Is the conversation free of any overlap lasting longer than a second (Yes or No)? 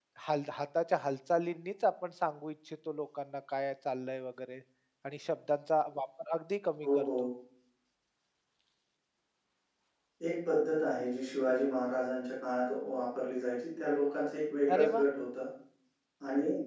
Yes